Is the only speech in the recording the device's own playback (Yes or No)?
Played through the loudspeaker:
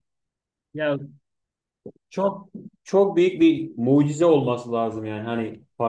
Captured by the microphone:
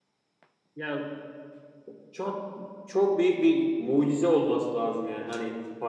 Yes